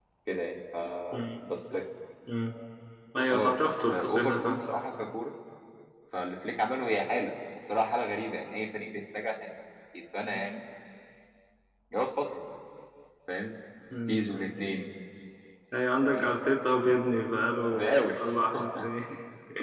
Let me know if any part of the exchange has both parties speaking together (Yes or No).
Yes